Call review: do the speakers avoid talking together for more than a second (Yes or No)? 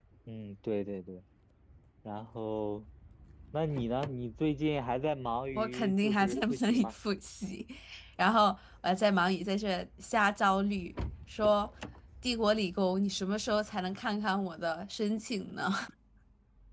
No